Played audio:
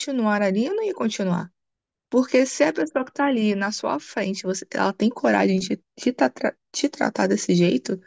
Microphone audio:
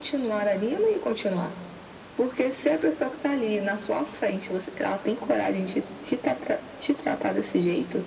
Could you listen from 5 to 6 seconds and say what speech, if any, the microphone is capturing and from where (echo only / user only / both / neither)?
echo only